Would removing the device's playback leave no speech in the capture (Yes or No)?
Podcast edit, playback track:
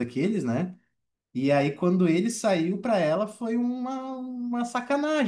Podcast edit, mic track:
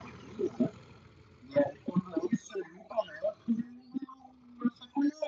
Yes